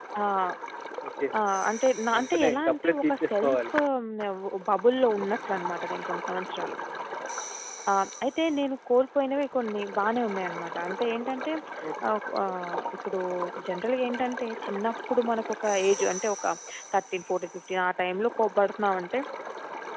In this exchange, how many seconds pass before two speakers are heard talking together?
2.1 s

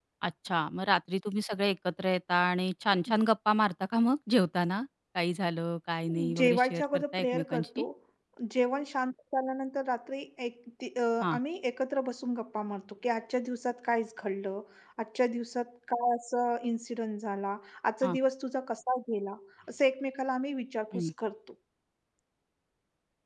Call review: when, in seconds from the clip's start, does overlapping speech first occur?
6.4 s

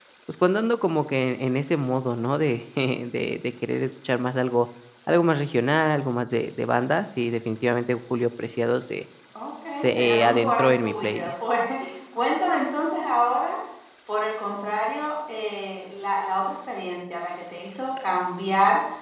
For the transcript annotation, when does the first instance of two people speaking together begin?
9.7 s

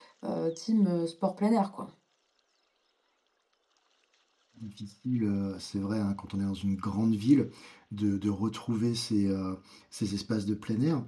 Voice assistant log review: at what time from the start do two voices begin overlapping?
none

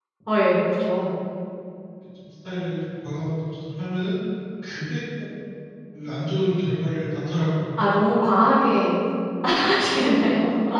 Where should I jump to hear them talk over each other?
none

